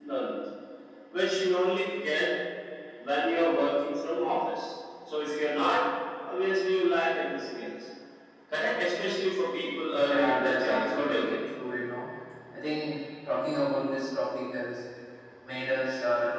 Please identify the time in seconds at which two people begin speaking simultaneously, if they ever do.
10.0 s

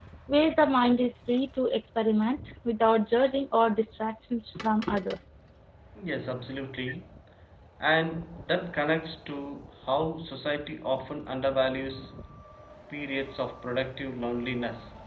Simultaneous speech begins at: none

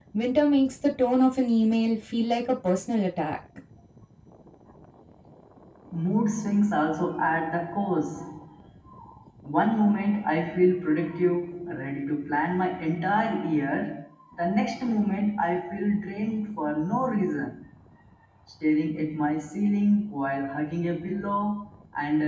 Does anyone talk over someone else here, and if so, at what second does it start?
none

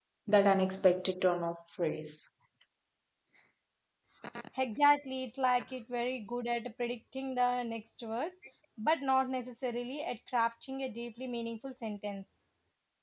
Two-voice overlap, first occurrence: none

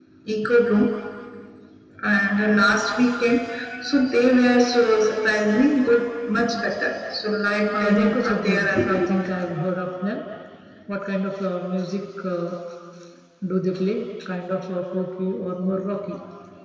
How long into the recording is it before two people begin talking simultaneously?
7.7 s

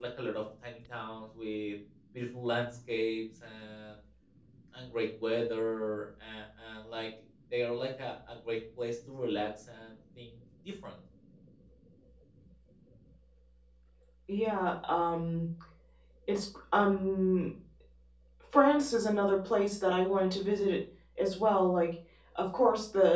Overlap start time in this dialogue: none

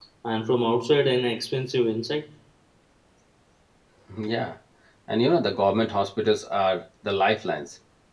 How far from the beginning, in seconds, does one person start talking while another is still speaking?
none

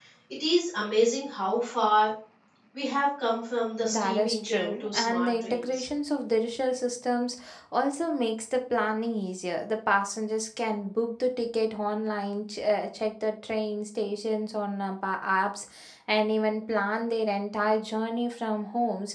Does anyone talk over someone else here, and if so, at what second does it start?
3.8 s

